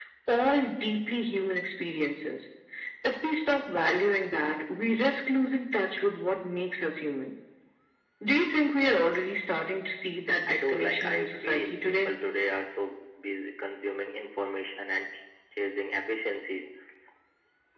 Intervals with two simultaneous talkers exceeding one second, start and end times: 10.5-12.1

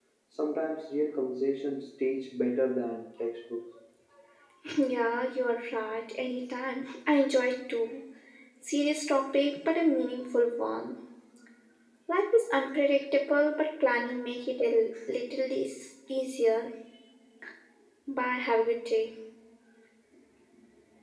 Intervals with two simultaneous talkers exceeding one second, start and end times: none

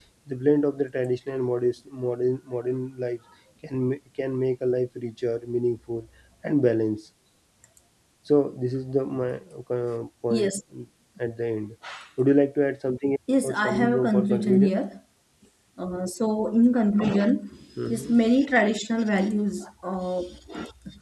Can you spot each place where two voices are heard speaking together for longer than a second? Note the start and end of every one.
13.4-14.7

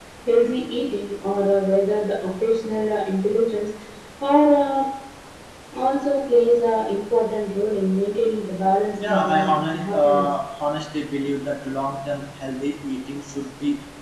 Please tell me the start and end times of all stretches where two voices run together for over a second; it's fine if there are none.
9.0-10.2

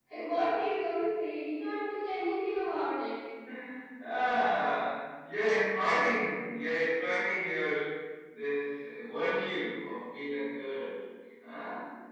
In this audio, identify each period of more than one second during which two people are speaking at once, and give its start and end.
none

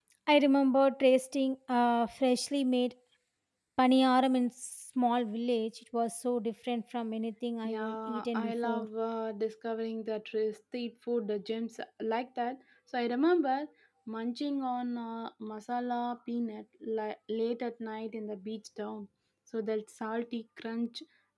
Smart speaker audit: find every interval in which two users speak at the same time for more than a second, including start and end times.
7.6-8.8

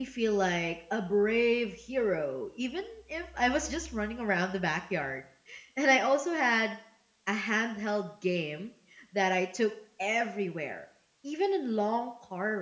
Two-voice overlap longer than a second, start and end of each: none

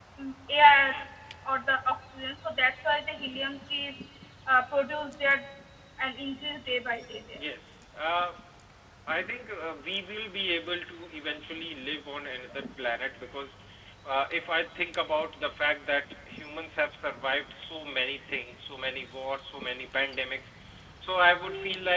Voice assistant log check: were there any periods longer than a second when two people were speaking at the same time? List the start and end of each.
none

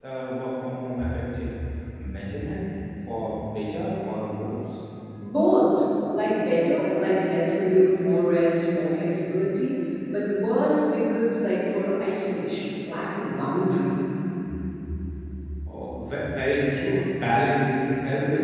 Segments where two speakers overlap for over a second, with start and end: none

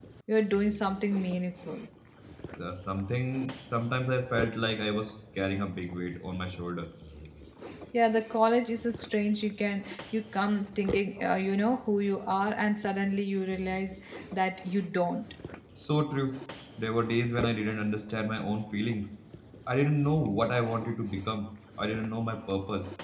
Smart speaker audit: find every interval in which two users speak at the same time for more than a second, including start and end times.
none

